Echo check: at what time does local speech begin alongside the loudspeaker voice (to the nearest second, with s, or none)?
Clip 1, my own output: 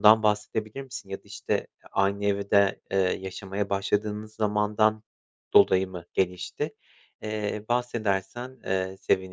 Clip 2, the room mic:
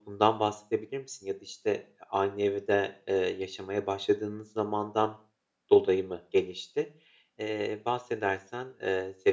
none